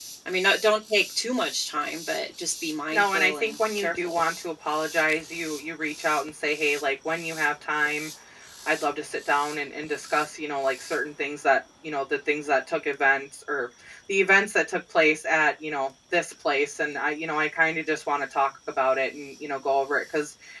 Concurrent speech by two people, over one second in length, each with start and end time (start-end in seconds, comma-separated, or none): 2.9-4.2